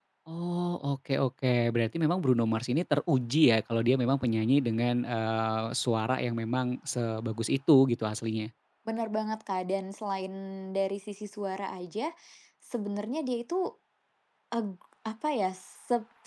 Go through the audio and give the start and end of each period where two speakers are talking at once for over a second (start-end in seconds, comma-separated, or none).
none